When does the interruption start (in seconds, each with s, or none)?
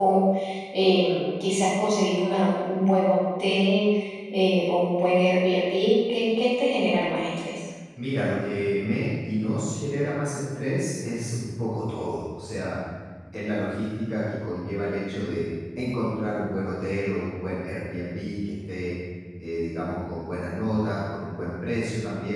none